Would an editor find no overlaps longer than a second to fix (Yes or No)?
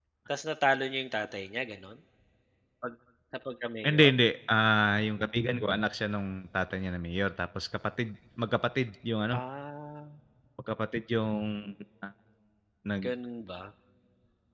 Yes